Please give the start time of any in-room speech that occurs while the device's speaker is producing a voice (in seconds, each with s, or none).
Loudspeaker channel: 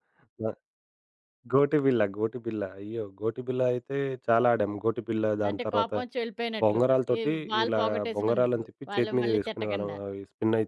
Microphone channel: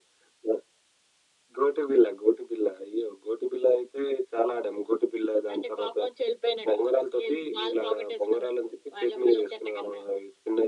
none